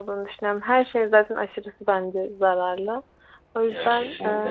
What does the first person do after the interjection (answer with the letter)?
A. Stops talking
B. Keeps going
B